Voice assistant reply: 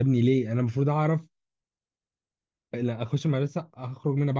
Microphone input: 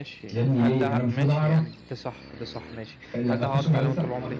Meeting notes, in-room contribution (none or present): present